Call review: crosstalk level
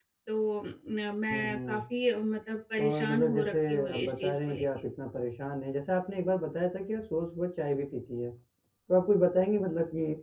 present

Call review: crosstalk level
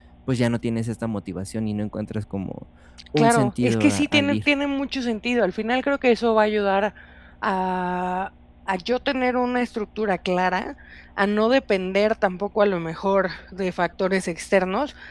present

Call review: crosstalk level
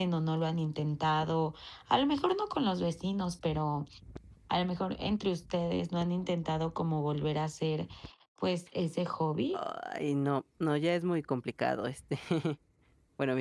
none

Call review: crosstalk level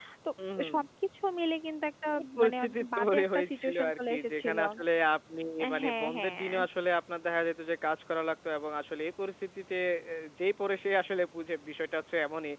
present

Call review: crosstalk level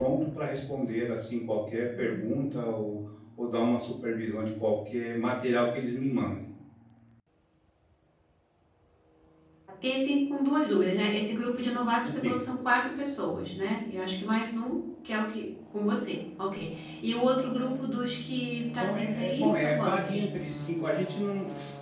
present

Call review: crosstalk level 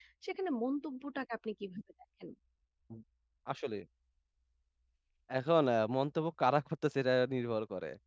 none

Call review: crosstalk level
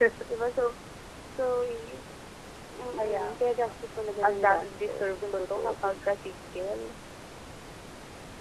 present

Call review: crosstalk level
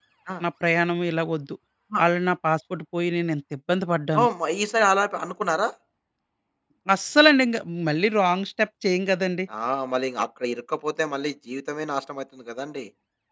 none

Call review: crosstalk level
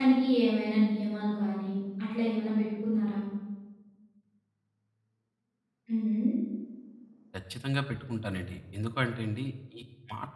none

